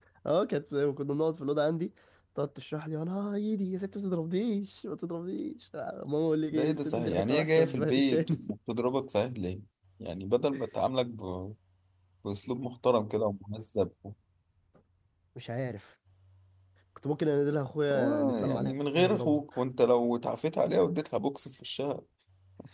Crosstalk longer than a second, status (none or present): present